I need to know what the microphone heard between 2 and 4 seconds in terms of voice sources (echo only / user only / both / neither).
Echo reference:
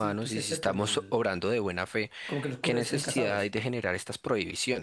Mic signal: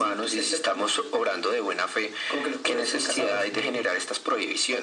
both